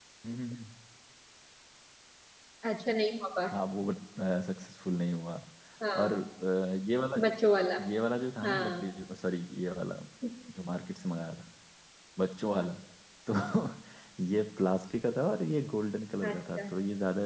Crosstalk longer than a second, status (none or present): none